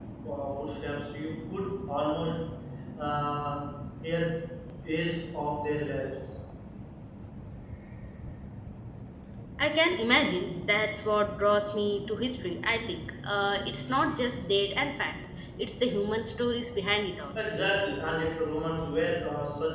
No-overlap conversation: Yes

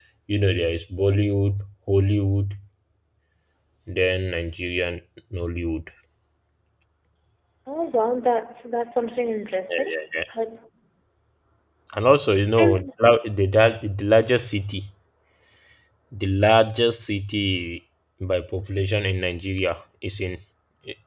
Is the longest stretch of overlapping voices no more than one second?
Yes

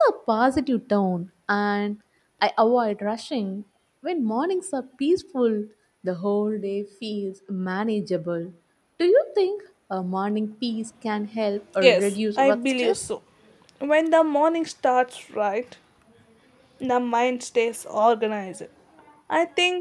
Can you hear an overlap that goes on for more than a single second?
Yes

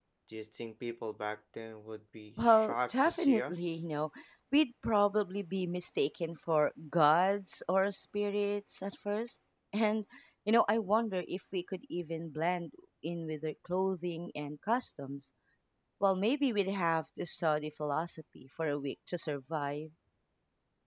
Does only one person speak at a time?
No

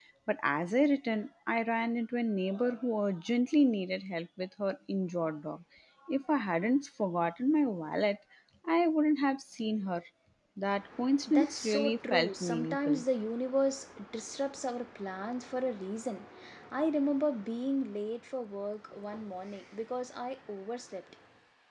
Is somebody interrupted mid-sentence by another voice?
Yes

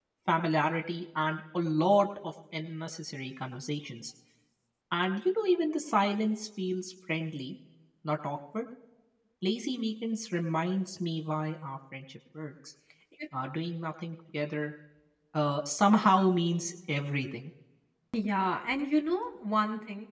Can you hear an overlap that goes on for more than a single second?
No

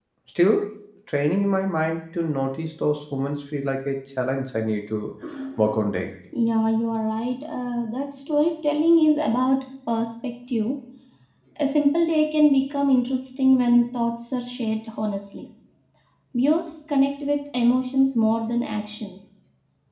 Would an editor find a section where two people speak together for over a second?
No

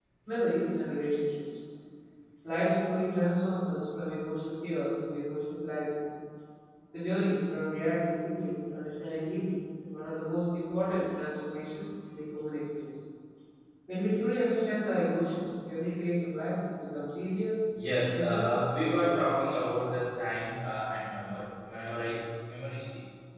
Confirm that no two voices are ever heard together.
No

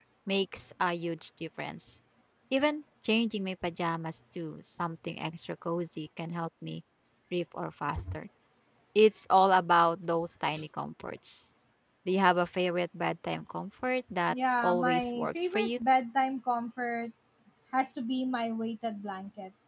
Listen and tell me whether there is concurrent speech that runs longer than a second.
Yes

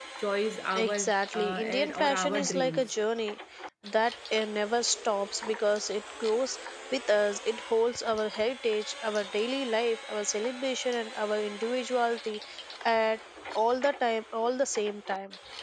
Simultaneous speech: Yes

